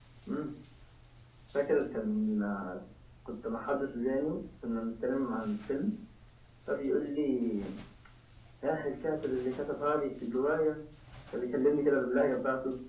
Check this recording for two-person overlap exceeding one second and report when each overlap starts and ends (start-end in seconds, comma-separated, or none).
none